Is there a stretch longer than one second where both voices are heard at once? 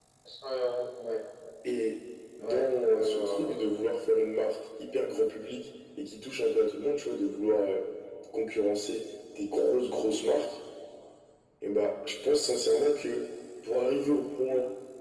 Yes, from 2.4 s

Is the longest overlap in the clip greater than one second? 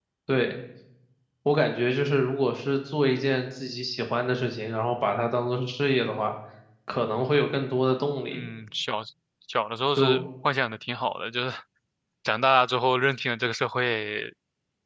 No

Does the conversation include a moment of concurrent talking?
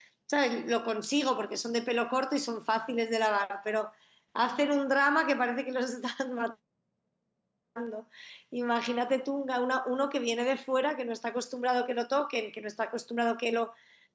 No

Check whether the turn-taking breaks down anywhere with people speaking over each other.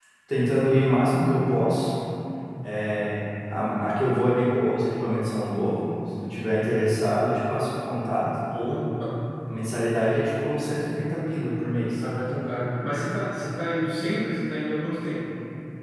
No

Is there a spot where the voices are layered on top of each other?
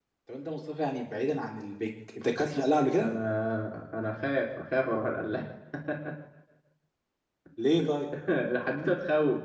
No

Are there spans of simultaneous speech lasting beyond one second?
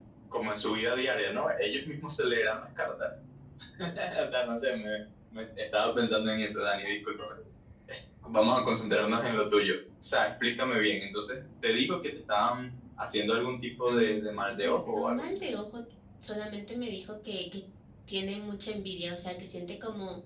Yes, from 13.9 s

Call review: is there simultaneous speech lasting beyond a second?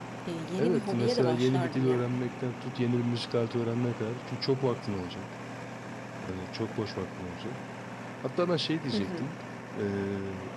Yes, from 0.6 s

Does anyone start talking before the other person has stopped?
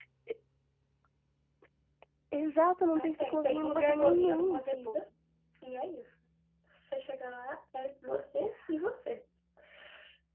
Yes, from 2.9 s

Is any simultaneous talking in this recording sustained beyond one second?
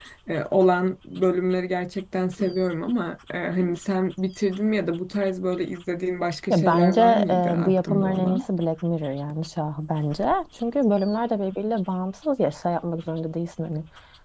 Yes, from 6.5 s

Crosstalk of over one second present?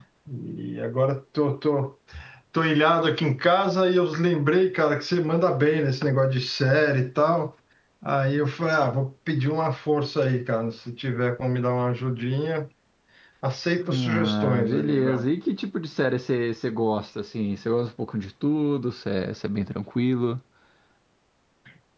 Yes, from 13.8 s

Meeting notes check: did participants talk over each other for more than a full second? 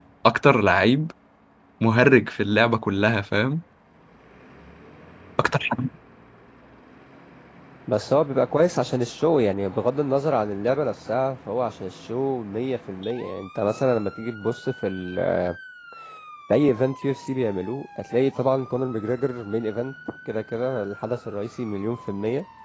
No

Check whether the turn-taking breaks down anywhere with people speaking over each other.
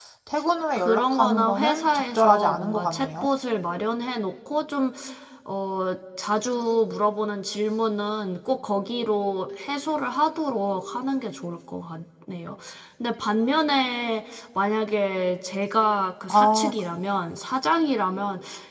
Yes, from 0.8 s

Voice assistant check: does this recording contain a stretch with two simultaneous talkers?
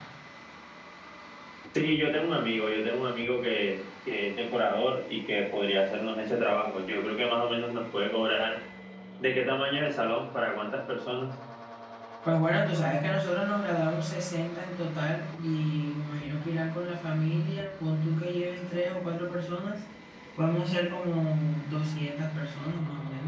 No

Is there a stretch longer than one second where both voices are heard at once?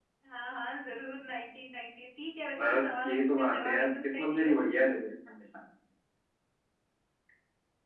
Yes, from 2.6 s

